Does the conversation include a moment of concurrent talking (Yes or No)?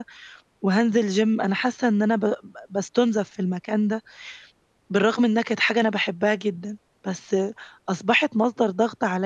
No